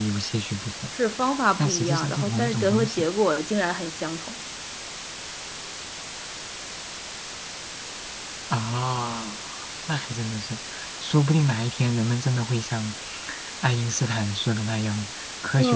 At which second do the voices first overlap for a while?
1.6 s

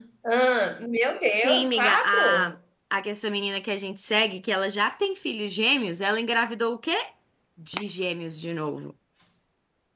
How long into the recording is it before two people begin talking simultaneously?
1.2 s

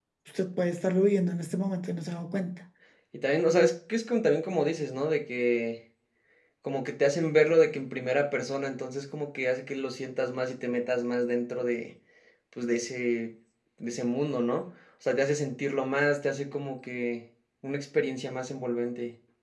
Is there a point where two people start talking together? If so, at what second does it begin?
none

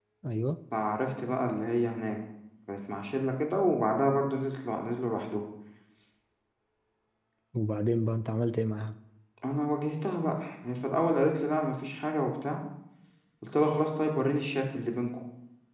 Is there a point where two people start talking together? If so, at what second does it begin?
none

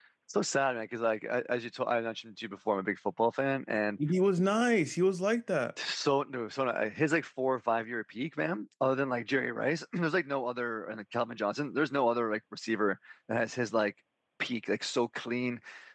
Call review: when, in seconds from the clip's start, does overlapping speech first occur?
none

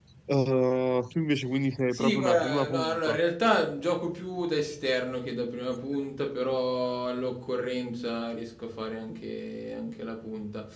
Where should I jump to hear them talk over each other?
1.9 s

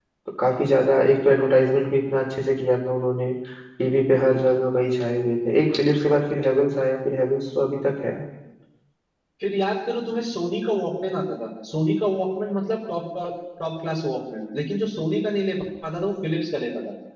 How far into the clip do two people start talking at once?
none

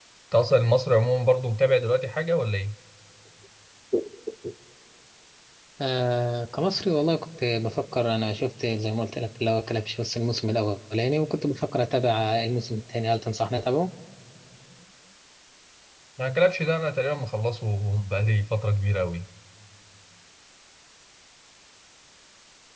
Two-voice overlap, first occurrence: none

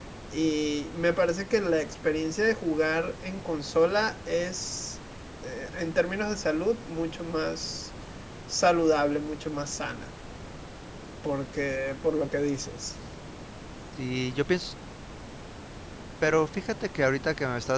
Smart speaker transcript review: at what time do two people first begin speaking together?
none

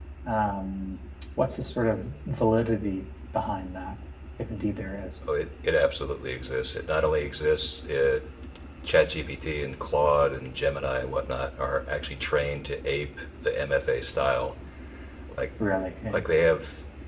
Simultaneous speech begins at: none

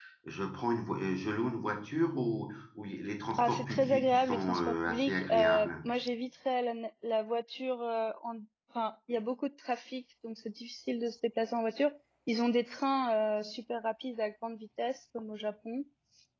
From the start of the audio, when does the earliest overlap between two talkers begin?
3.4 s

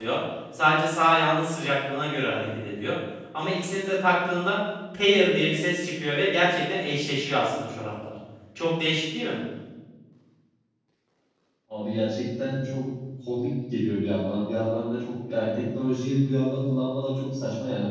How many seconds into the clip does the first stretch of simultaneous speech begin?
none

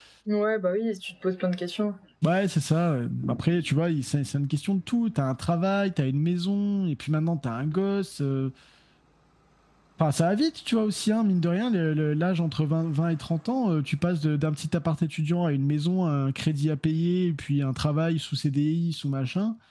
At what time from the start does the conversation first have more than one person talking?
none

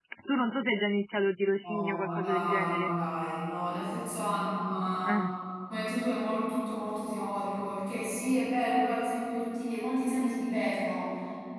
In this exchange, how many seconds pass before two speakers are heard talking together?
1.6 s

